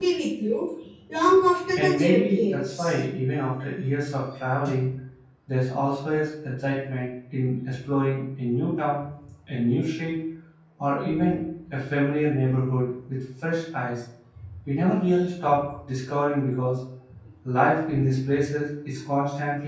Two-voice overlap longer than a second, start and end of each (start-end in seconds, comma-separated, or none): 1.8-3.0